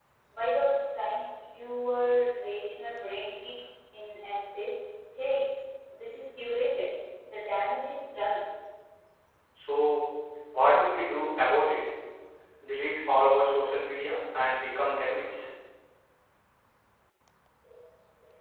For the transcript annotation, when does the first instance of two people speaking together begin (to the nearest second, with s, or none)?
none